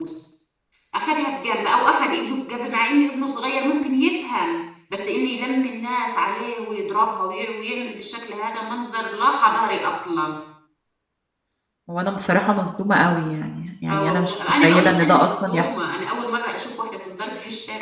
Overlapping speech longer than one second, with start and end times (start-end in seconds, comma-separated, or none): 13.9-15.7